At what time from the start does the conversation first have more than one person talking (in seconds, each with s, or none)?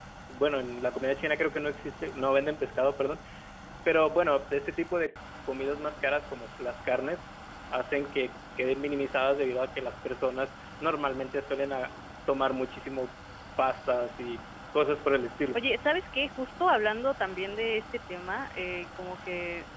none